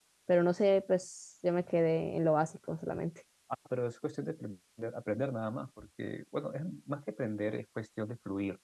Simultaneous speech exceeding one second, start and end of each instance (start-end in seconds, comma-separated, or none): none